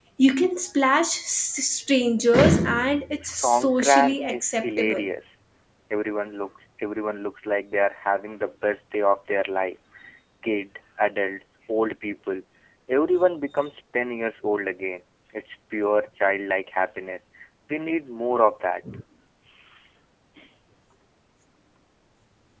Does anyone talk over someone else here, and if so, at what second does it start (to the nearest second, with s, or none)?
3 s